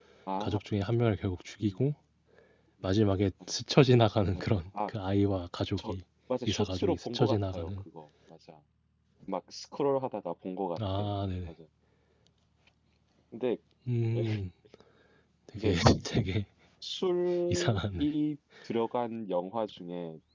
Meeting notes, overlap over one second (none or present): present